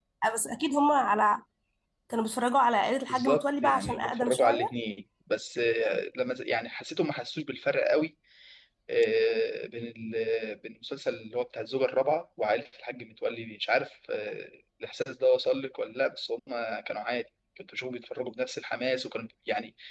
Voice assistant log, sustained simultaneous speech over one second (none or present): present